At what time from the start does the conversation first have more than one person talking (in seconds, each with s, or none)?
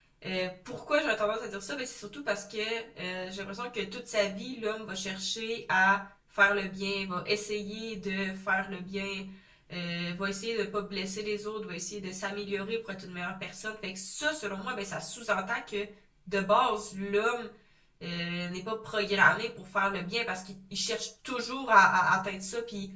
none